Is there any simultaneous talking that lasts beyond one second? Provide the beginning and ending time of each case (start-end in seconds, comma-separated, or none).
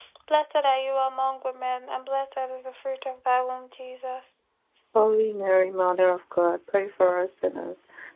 none